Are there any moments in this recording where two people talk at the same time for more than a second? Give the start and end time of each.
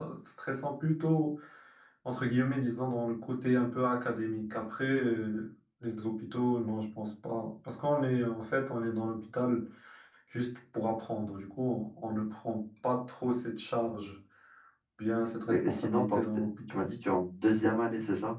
15.5-16.8

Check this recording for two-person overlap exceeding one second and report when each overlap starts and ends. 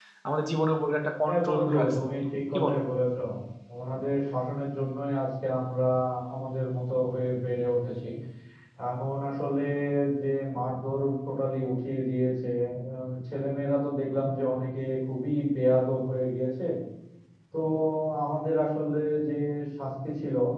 1.2-2.8

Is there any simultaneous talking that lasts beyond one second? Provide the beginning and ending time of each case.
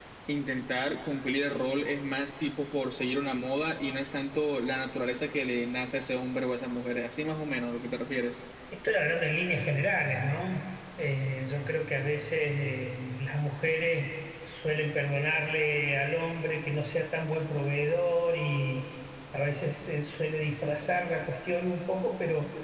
none

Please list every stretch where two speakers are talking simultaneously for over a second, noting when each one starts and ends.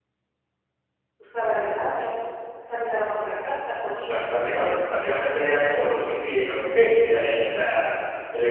none

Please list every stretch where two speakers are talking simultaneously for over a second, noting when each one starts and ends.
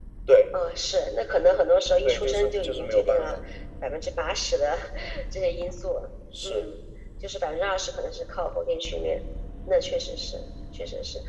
2.0-3.4

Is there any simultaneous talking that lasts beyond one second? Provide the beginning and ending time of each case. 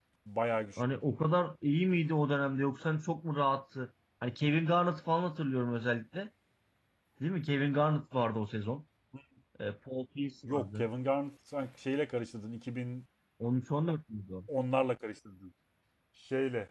none

